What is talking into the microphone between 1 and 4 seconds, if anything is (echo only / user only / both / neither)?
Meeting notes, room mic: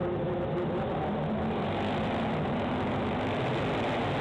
neither